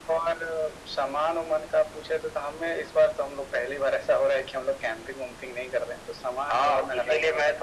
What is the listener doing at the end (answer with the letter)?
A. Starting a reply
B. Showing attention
A